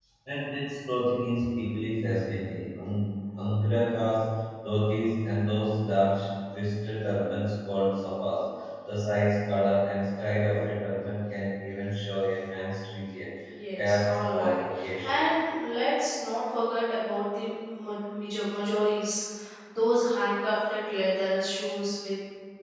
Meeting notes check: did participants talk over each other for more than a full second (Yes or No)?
Yes